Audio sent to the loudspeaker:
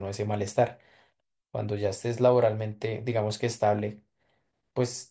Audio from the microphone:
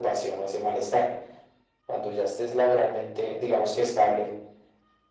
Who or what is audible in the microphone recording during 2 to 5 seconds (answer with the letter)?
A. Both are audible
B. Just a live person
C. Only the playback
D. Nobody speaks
C